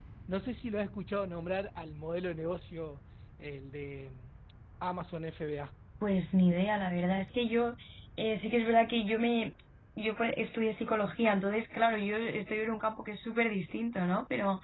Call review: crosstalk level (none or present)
none